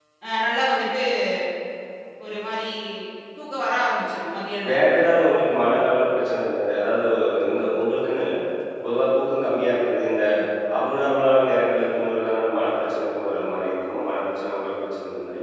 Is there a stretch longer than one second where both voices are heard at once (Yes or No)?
No